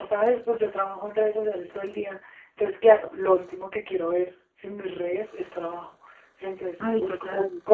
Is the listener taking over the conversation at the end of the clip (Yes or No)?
No